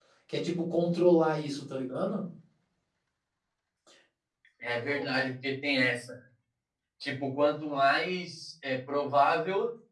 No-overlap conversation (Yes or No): Yes